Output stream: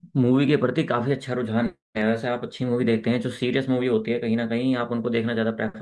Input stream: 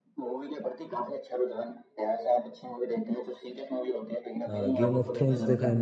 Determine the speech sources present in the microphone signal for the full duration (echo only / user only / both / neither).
both